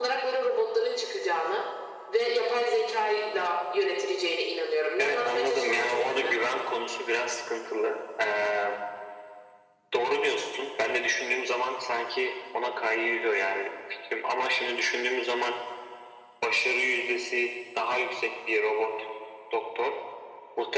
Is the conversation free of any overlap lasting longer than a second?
No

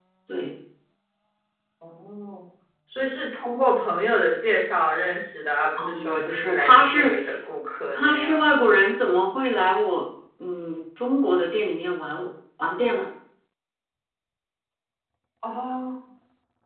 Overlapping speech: Yes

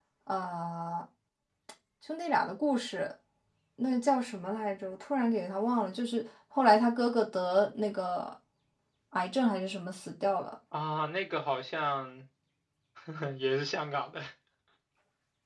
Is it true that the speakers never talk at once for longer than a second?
Yes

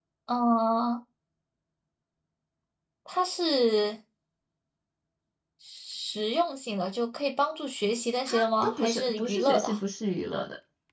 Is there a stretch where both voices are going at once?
Yes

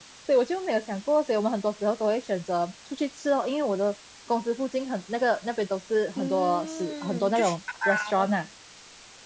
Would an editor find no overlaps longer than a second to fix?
No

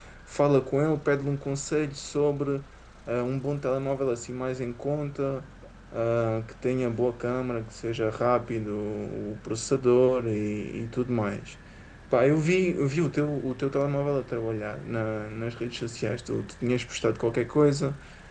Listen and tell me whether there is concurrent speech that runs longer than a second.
No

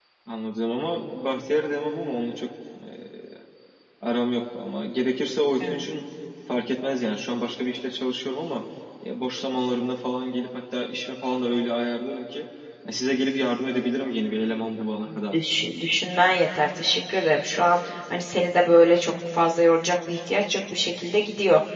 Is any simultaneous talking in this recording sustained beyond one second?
No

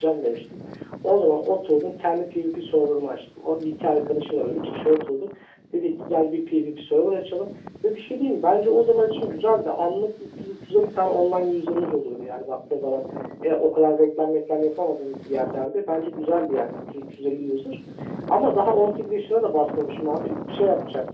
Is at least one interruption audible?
No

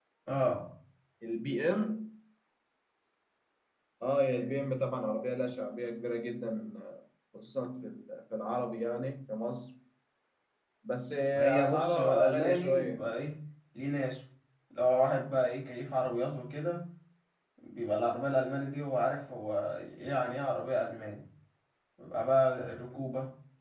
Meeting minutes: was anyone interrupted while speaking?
Yes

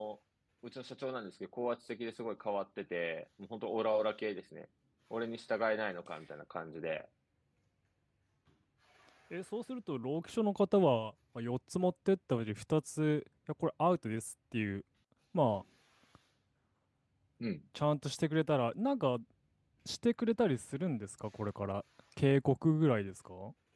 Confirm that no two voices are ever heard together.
Yes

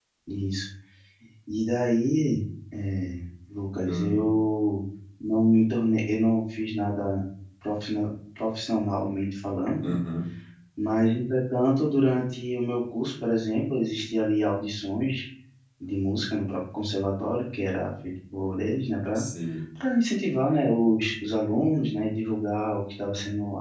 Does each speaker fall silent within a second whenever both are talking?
Yes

